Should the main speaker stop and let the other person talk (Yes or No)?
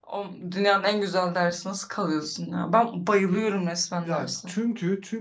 Yes